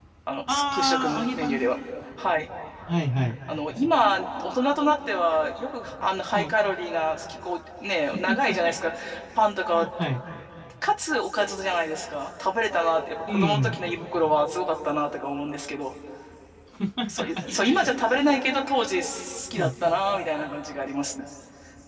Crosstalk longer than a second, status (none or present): present